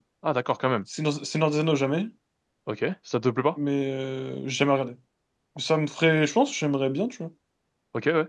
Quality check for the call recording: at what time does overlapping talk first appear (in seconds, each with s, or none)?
none